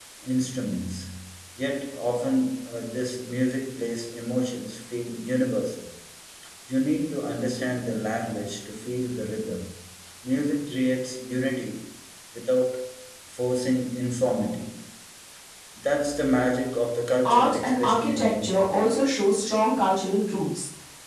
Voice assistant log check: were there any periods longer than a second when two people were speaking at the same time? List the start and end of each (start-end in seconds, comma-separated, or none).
17.2-18.7